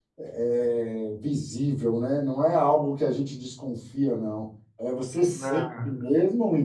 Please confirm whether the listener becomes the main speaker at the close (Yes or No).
No